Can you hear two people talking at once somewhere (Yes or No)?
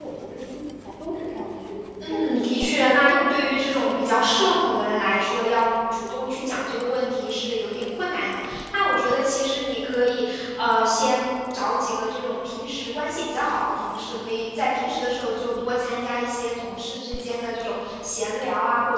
Yes